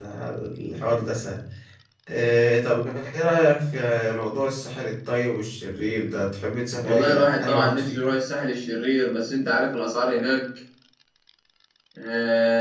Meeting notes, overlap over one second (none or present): present